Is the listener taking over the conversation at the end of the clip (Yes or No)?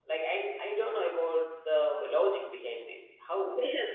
Yes